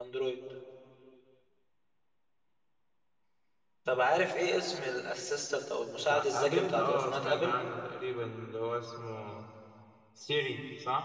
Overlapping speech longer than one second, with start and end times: 6.0-7.5

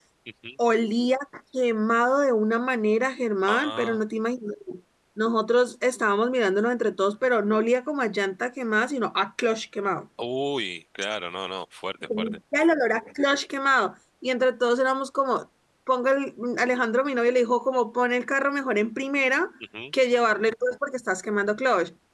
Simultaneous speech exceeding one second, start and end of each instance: none

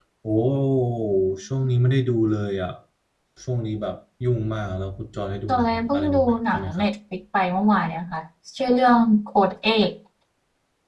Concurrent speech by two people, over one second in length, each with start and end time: 5.5-6.7

